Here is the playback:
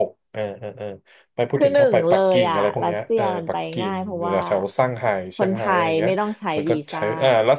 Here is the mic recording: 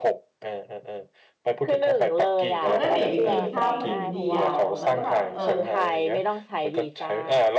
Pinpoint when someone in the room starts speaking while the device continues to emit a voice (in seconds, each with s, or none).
2.6 s